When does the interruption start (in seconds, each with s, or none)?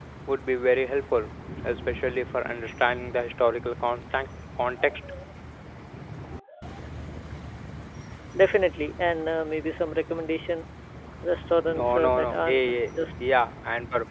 11.7 s